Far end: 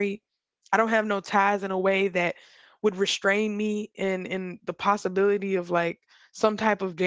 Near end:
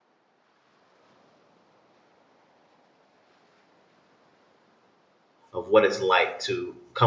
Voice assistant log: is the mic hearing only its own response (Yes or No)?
No